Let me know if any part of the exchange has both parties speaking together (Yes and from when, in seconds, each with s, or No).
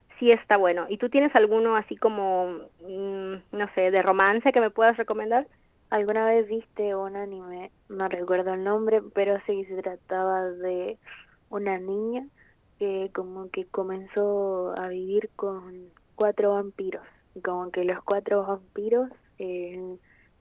No